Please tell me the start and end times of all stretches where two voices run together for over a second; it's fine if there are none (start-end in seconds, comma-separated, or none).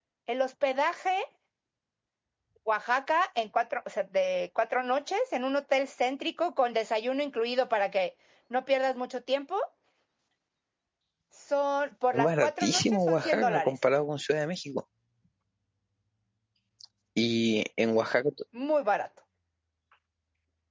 12.1-13.7